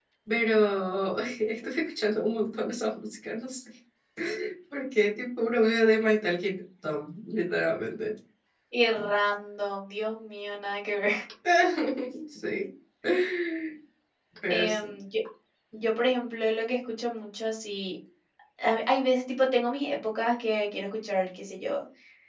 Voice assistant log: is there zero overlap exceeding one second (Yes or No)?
Yes